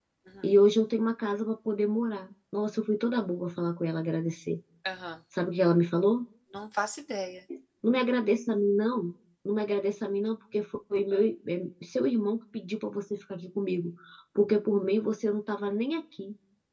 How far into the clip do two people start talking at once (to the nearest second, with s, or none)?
none